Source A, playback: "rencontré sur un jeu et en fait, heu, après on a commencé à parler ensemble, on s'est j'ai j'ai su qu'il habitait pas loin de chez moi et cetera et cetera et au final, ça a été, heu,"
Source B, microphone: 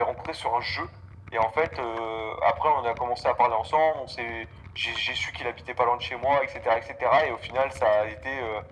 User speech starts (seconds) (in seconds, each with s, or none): none